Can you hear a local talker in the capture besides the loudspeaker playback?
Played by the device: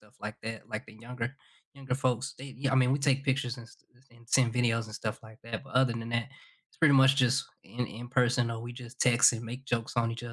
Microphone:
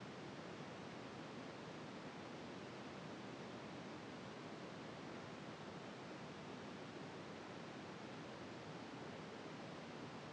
No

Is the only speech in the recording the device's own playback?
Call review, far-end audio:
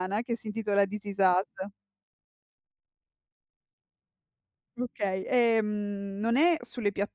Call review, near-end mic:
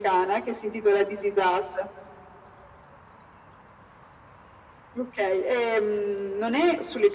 Yes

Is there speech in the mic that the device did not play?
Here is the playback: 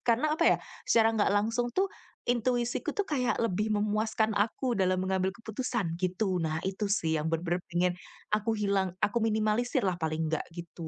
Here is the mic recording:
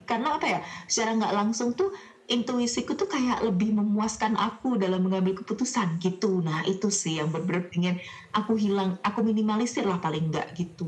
No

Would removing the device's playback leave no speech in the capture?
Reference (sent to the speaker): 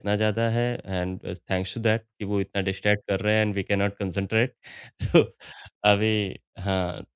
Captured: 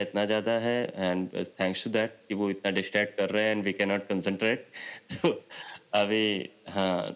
Yes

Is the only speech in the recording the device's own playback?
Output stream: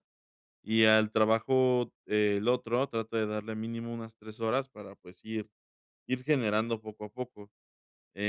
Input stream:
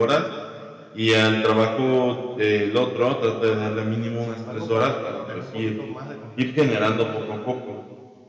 No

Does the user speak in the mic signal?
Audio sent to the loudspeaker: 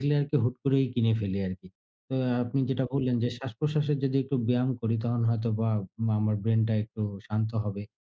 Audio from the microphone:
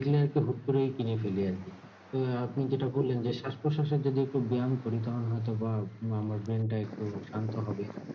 No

